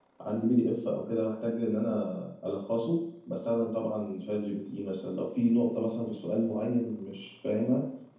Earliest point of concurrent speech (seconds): none

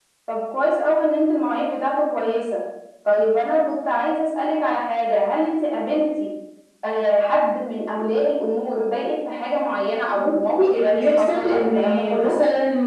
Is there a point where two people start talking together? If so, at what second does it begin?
10 s

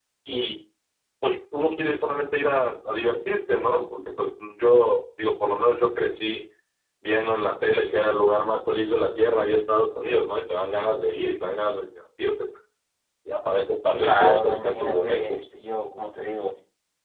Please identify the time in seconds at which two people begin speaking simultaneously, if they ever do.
14 s

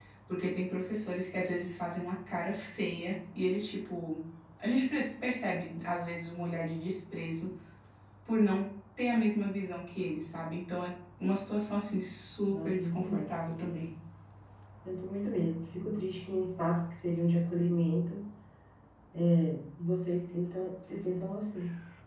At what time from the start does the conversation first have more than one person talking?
12 s

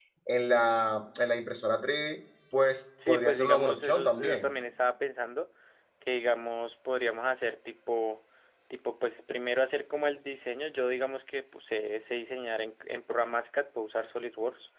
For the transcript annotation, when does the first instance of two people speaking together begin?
3 s

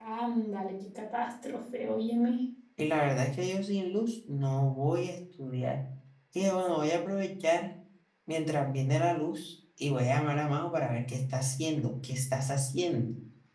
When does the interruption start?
none

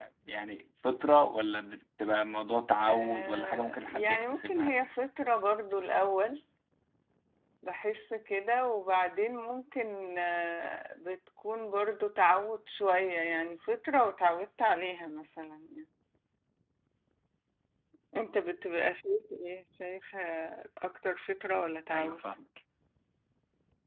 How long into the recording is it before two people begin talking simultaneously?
3 s

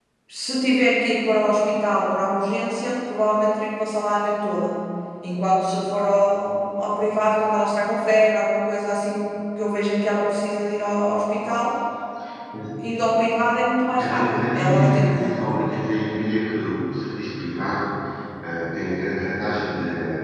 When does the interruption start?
14 s

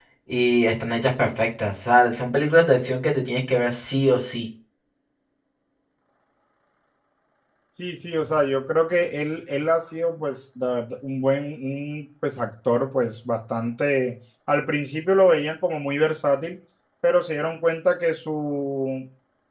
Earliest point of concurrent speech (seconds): none

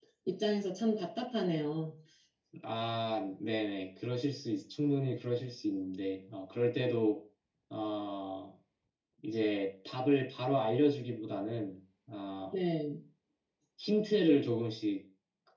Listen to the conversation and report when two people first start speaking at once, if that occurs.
none

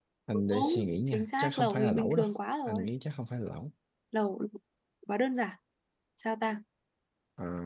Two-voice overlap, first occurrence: 1 s

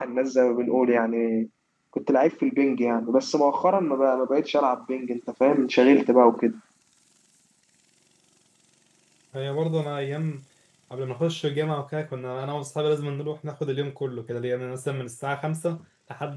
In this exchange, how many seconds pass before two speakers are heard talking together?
none

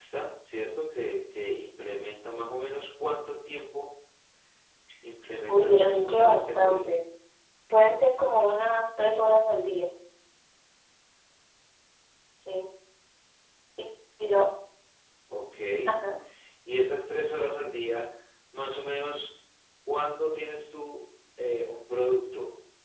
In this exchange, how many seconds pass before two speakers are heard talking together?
5 s

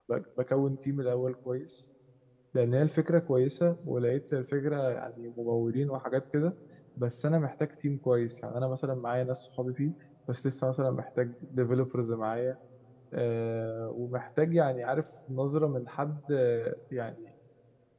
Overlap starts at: none

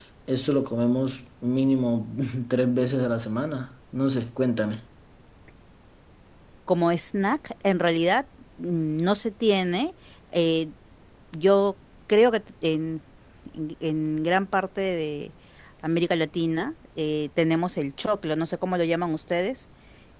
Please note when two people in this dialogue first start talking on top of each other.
none

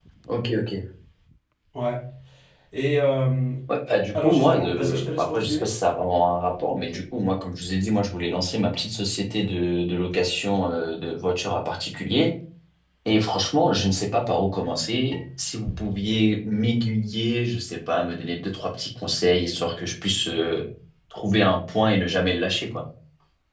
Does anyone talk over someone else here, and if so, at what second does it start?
4 s

